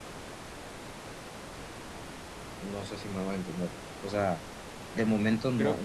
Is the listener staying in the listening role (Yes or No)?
Yes